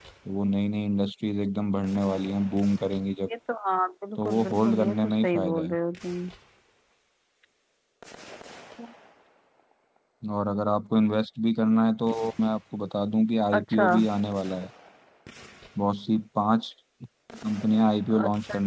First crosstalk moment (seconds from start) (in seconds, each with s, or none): 4.2 s